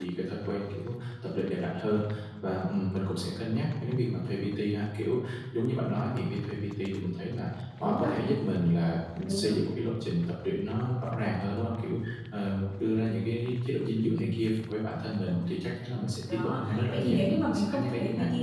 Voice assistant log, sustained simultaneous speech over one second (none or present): present